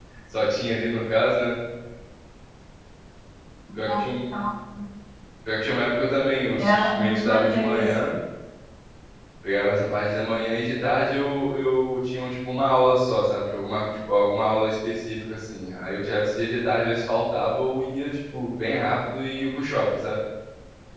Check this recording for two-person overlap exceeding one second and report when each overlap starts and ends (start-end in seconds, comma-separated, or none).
6.6-7.9